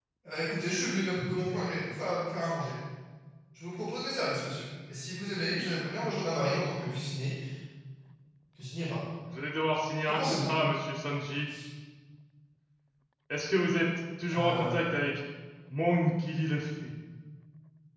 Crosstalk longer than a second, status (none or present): none